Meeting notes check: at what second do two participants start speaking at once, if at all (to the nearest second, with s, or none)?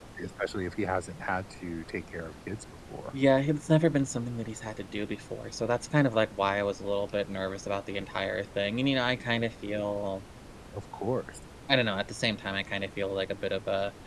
none